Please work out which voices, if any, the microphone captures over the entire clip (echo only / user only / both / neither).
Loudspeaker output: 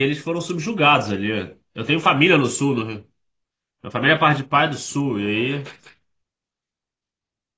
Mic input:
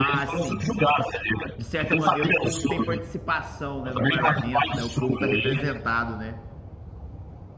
both